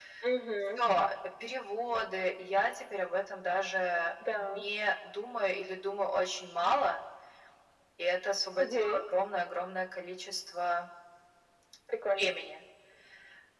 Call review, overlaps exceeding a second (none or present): none